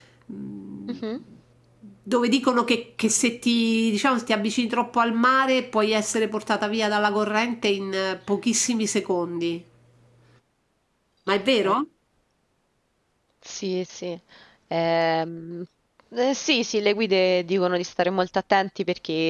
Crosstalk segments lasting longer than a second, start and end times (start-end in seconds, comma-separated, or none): none